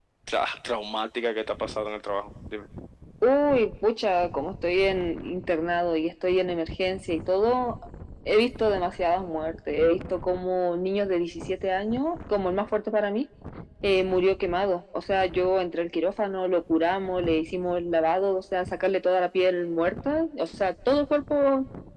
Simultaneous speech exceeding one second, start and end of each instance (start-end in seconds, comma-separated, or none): none